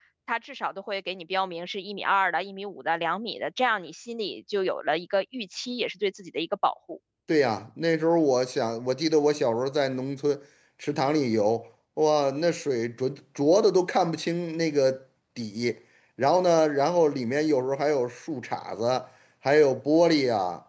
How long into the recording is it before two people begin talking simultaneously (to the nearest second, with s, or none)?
none